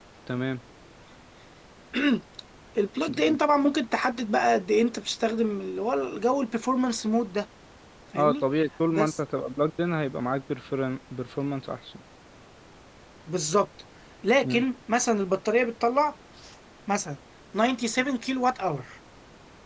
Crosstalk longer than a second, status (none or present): none